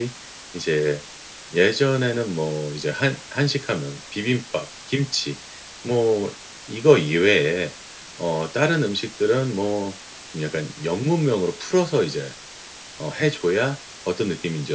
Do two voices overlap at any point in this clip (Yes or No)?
No